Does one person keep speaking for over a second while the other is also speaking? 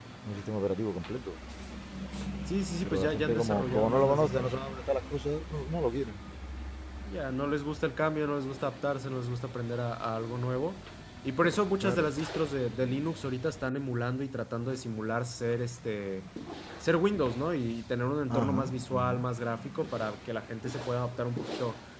Yes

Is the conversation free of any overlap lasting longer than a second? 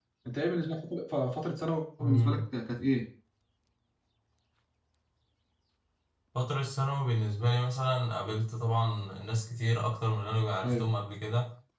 Yes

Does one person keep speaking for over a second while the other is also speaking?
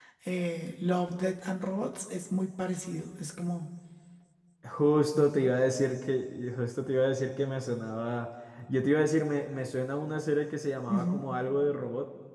No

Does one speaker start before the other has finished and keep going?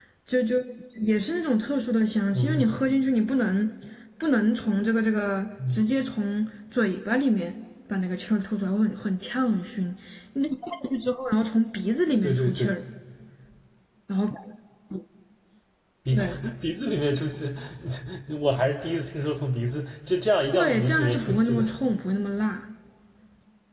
Yes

